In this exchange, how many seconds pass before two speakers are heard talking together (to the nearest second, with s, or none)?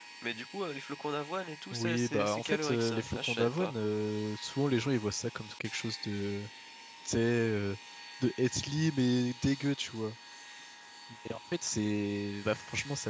2 s